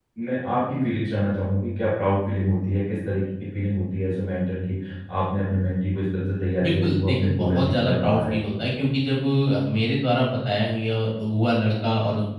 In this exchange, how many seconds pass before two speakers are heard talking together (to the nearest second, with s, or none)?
7 s